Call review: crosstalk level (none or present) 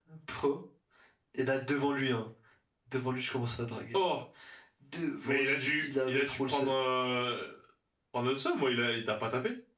present